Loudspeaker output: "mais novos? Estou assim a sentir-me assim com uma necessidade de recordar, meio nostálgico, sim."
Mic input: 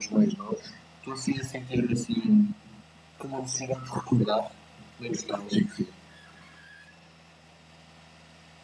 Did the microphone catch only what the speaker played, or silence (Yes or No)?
Yes